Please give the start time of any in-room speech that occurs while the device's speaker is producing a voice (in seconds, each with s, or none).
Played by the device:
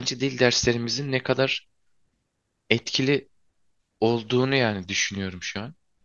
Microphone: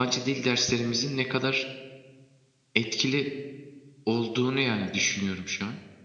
none